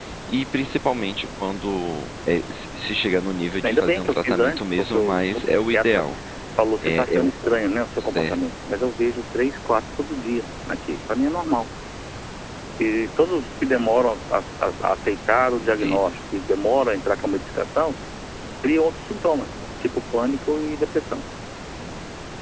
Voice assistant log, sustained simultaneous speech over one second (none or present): present